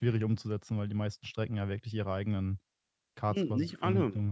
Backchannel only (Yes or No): No